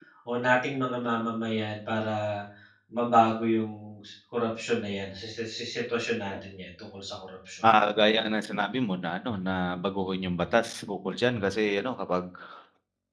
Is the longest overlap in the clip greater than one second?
No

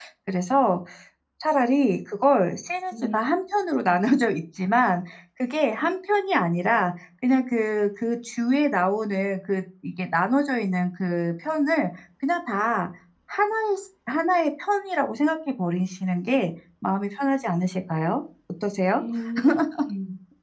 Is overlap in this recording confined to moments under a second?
Yes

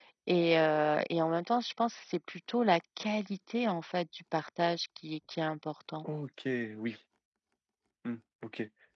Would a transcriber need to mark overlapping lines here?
No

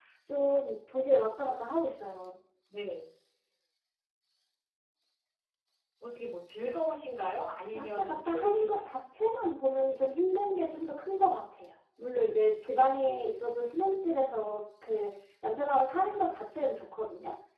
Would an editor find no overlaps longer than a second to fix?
No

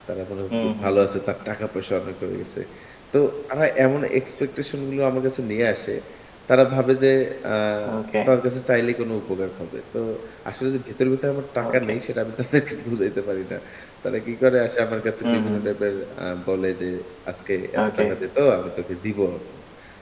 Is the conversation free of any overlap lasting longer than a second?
Yes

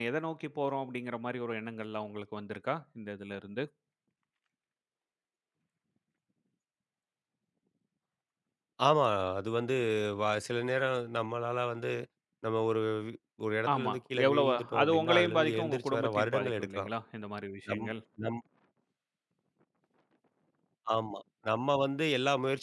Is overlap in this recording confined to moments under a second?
No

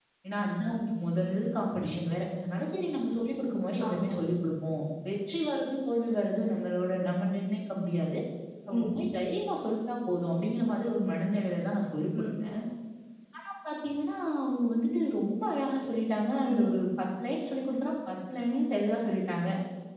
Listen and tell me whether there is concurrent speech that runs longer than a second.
No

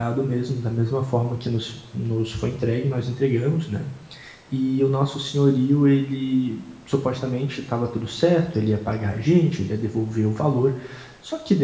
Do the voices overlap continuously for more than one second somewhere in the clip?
No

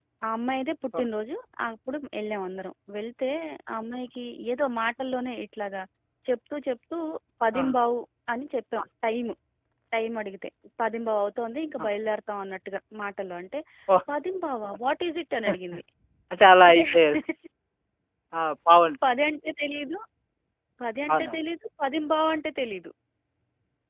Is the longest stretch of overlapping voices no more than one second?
Yes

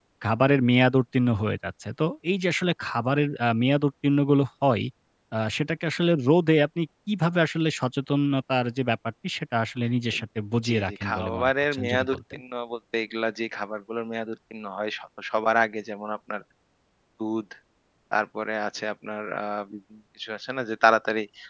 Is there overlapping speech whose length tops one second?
Yes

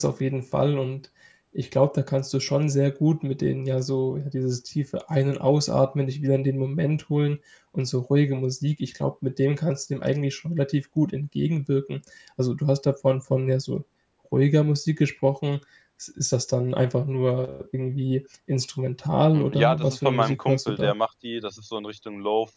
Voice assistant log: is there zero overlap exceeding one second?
No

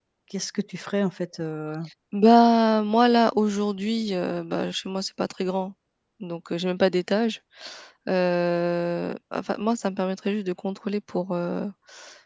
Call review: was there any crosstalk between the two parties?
No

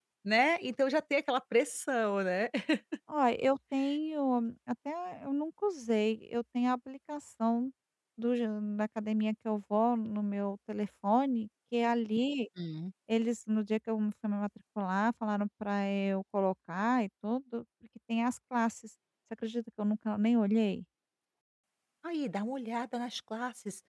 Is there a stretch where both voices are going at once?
No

